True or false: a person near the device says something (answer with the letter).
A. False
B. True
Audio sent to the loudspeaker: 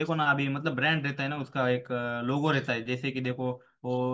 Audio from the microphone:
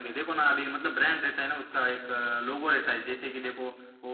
A